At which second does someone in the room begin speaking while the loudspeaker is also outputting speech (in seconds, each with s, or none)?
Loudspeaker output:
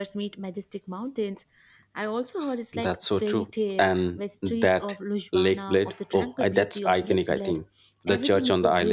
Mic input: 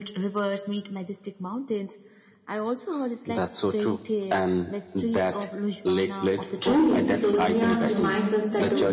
6.6 s